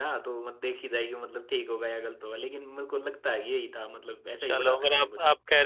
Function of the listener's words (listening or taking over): taking over